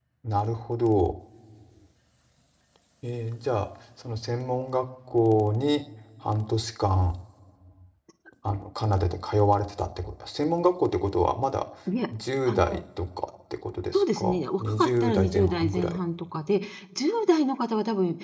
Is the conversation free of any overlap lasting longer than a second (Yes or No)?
No